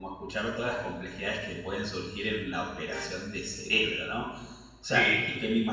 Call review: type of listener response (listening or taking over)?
listening